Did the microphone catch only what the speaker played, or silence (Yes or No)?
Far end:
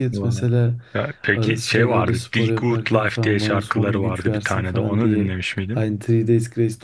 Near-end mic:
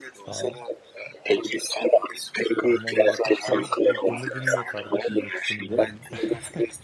No